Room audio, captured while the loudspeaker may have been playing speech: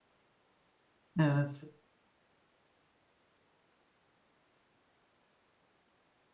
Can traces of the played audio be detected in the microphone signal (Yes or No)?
No